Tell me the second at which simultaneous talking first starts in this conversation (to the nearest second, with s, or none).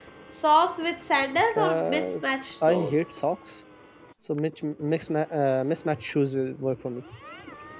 2 s